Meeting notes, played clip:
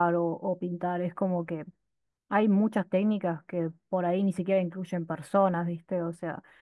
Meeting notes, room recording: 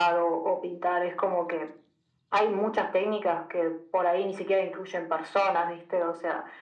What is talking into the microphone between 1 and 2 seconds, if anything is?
echo only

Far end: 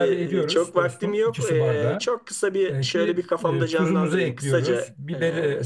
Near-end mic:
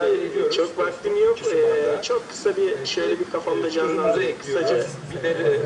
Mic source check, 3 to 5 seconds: both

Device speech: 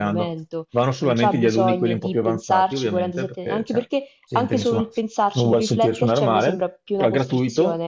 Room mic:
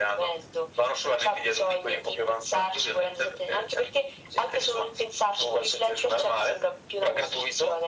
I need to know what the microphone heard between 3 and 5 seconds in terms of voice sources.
echo only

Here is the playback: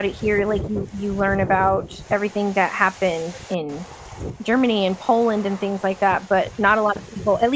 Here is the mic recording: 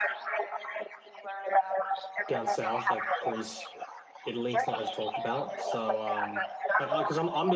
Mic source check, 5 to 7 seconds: both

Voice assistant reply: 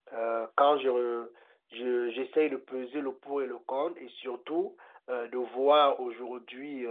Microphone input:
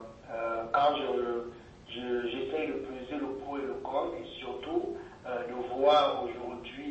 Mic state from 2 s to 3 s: echo only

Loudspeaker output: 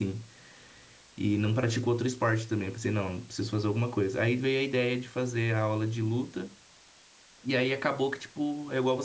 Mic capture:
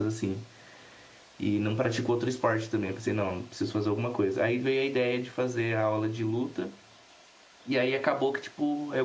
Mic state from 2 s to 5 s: echo only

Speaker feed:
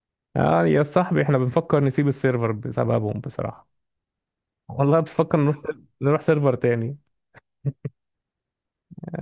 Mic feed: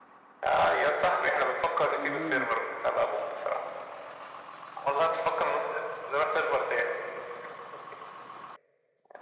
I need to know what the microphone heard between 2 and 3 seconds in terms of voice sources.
both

